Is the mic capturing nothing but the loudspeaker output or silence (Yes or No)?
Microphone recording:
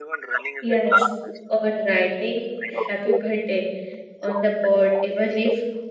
No